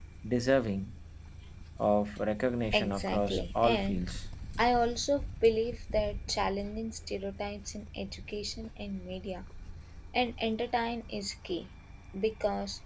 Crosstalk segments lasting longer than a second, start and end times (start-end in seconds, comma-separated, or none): 2.7-4.0